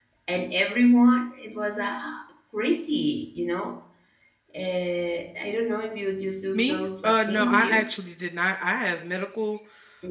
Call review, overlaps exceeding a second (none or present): present